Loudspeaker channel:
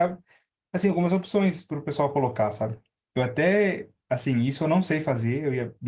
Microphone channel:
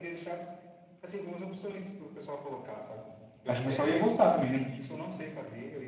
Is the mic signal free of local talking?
No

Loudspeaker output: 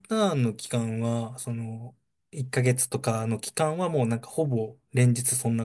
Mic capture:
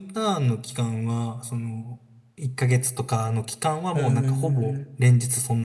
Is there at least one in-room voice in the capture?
Yes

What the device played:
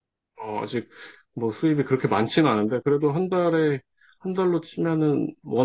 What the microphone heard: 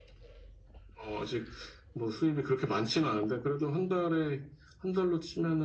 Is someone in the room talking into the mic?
No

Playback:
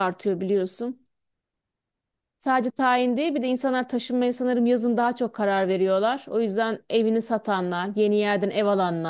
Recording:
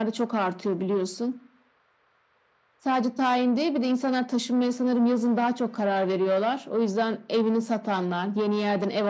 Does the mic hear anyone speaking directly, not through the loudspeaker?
No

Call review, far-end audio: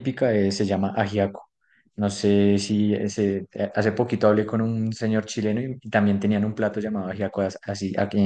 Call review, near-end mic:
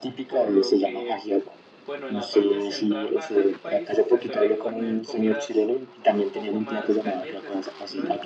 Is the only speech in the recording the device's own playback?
No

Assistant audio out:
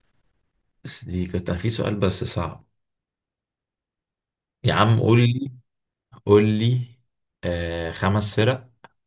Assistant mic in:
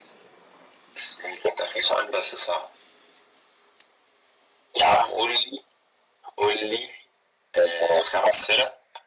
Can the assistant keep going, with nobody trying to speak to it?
Yes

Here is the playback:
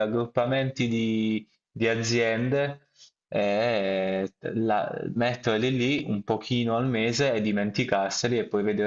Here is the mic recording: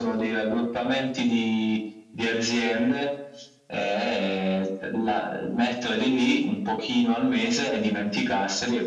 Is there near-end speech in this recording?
No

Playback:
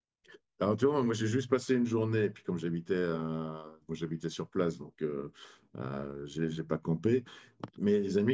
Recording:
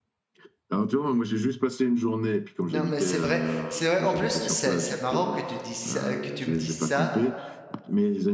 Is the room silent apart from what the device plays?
No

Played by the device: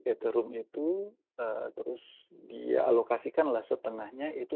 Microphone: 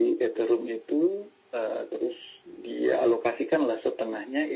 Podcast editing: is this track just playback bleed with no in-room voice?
Yes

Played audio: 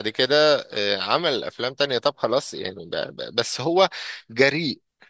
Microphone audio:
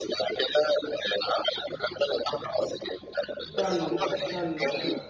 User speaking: Yes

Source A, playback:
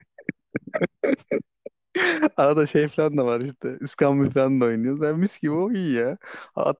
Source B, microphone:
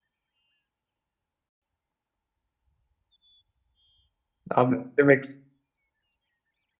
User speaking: Yes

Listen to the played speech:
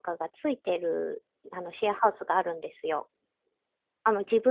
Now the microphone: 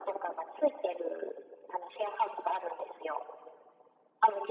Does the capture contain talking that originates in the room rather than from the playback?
No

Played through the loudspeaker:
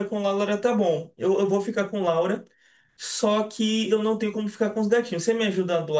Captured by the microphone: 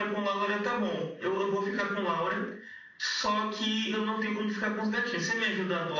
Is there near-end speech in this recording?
No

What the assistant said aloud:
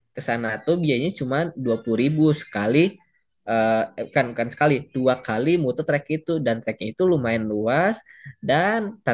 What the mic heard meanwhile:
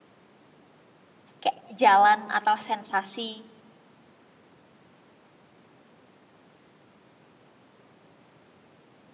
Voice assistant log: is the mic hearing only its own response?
No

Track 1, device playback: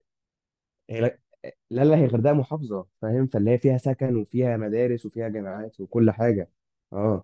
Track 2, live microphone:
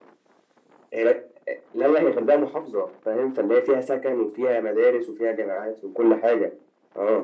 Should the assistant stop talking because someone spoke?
No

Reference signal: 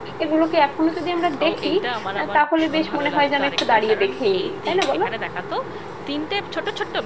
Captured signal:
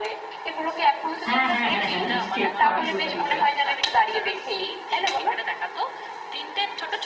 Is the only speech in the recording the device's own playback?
No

